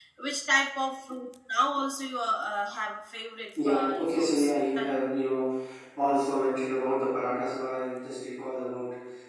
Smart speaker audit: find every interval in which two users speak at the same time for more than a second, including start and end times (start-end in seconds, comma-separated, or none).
3.6-5.0